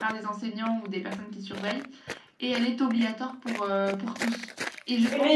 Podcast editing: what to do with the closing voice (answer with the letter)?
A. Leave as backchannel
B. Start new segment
B